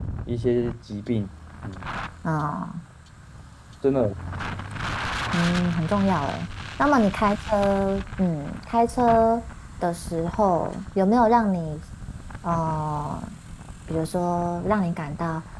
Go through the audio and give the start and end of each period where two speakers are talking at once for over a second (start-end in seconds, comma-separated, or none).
none